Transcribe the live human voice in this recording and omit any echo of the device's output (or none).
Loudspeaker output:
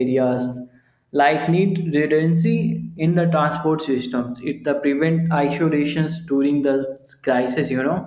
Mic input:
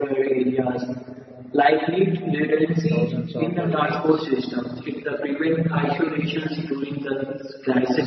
uh, thousands of uh, lives.